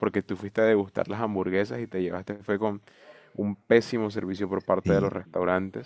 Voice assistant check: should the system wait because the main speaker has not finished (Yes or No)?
Yes